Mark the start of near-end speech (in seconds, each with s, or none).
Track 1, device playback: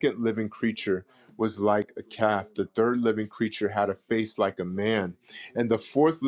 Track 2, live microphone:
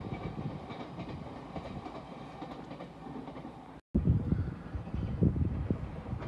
none